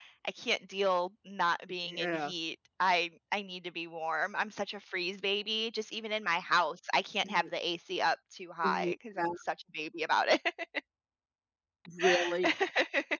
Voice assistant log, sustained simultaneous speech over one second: none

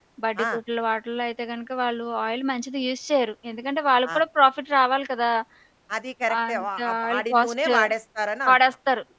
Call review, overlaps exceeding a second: present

